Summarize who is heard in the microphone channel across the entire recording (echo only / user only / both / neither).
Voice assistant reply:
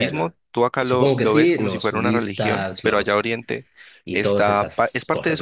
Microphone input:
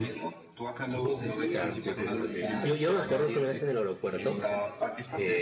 both